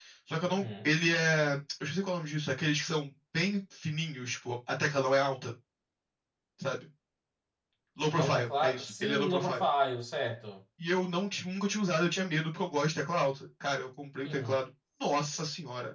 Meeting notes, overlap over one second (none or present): present